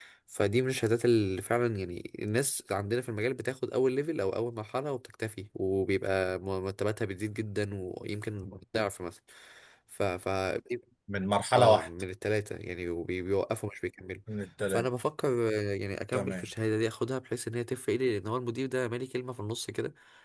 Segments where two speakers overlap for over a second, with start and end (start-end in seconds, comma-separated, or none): none